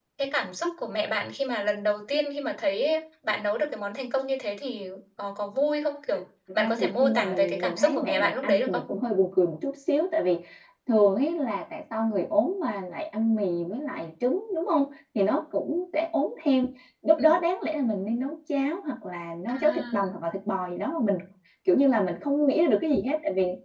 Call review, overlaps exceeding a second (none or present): present